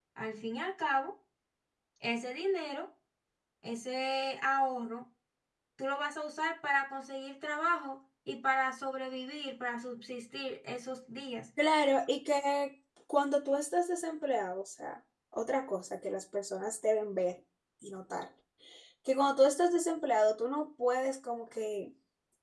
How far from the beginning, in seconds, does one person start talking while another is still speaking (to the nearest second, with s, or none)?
none